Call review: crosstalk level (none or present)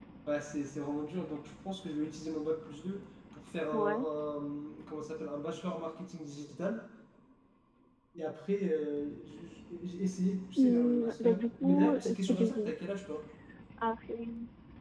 present